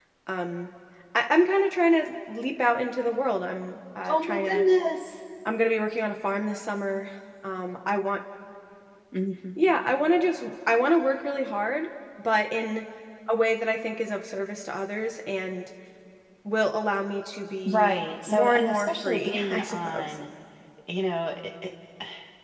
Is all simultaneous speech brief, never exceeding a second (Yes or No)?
No